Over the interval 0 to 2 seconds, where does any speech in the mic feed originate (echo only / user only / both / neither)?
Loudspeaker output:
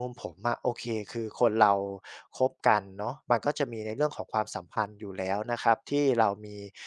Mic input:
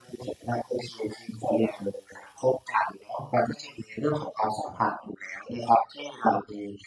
echo only